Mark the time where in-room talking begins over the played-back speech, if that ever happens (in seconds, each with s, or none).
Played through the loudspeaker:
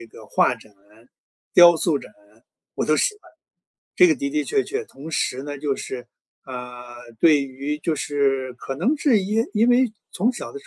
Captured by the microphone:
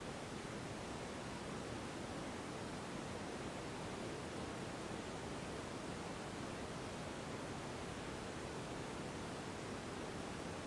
none